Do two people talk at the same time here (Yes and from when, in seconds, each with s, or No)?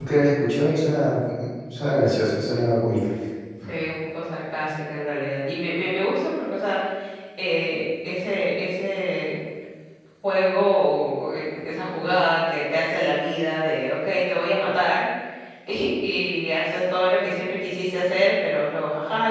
No